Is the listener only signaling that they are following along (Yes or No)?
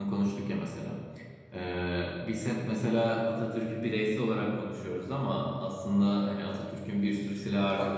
Yes